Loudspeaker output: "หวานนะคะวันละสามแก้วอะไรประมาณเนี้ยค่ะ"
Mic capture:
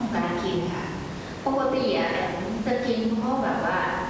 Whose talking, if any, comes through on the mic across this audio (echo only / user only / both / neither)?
user only